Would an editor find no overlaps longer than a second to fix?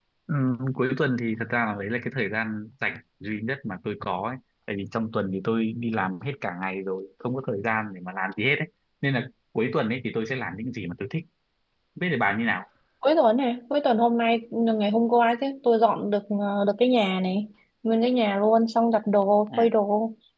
Yes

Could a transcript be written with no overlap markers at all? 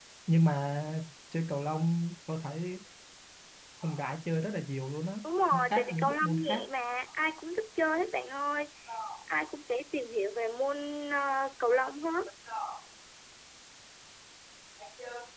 No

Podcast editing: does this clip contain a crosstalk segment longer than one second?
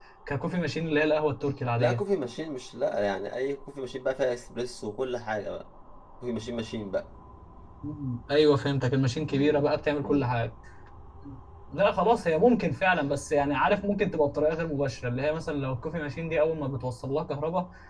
No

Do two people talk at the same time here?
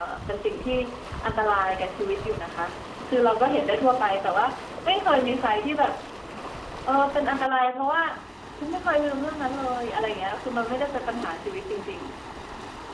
No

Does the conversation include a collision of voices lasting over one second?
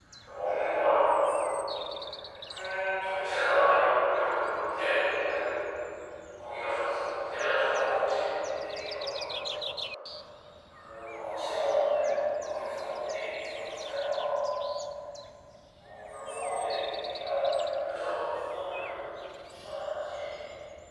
Yes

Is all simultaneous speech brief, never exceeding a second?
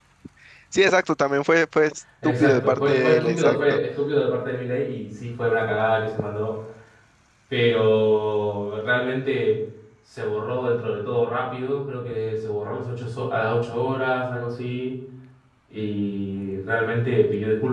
No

